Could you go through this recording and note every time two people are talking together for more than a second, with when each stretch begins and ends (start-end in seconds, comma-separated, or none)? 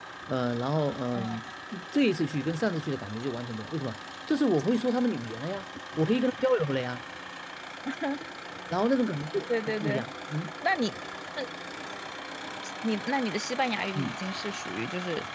none